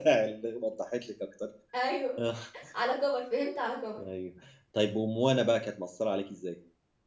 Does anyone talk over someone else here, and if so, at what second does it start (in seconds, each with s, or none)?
none